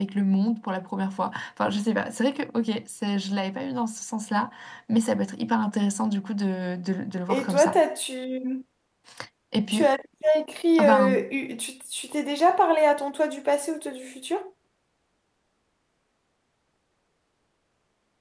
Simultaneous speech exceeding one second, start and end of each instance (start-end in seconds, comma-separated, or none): none